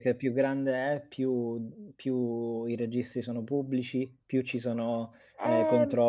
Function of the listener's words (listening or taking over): listening